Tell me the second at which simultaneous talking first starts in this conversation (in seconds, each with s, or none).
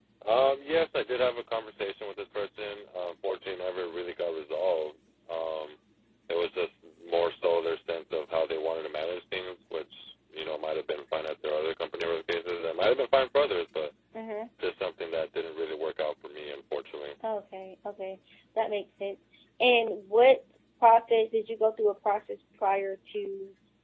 none